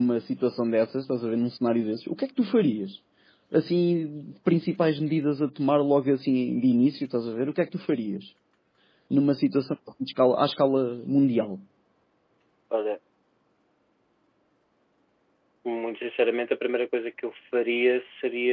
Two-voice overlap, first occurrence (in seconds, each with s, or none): none